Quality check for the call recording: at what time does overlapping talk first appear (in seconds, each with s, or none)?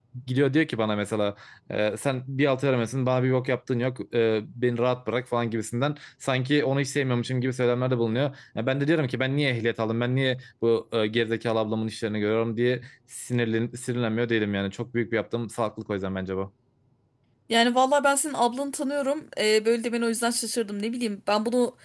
none